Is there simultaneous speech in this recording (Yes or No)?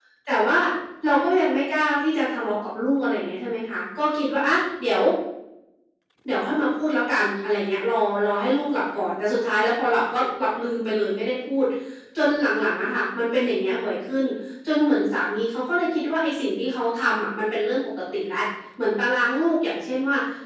No